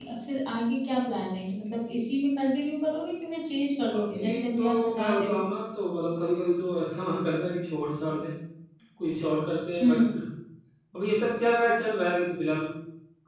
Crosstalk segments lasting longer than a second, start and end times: 3.9-5.4

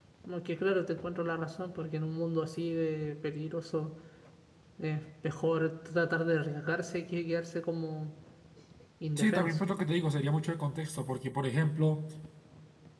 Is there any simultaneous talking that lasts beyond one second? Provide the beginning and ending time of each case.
none

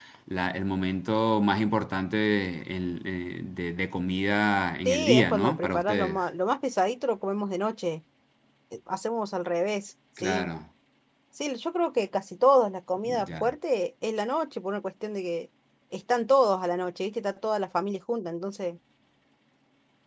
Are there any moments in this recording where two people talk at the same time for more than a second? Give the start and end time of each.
4.8-6.3

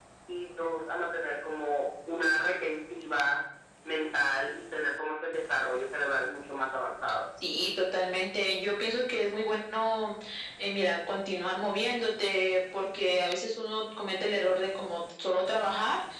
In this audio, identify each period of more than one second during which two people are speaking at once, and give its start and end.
none

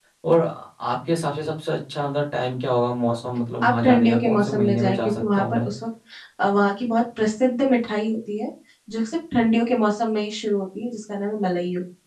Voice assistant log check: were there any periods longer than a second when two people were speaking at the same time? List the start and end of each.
3.6-5.7

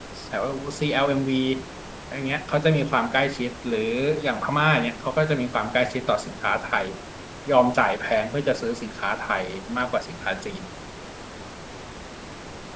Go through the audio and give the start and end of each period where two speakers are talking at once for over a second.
none

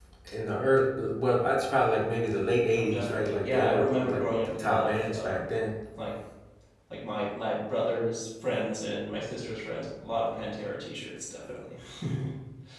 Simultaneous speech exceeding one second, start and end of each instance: 2.7-5.5

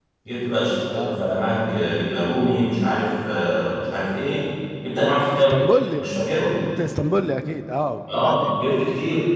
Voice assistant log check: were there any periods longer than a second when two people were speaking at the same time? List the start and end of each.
none

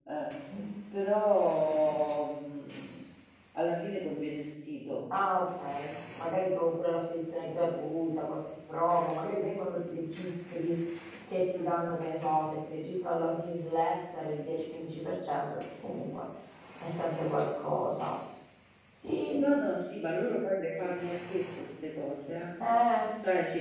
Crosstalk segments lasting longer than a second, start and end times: none

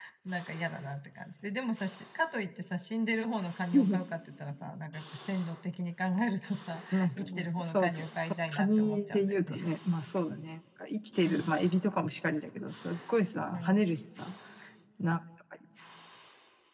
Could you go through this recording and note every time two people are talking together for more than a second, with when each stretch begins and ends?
6.9-9.6

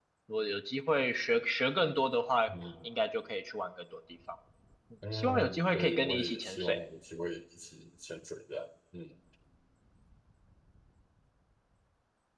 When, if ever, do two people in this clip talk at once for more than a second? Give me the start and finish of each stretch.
5.1-6.8

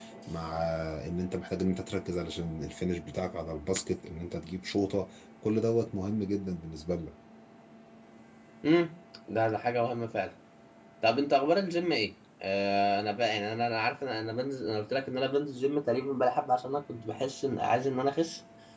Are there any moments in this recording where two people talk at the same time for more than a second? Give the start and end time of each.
none

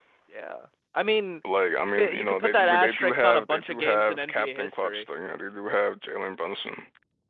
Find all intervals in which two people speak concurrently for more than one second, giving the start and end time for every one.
1.8-5.1

